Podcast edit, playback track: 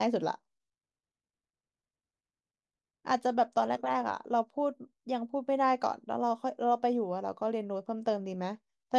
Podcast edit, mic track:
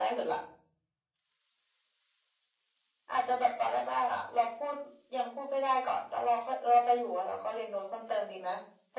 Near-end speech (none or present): none